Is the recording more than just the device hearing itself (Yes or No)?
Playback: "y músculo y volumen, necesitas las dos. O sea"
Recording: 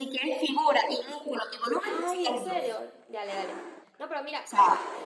Yes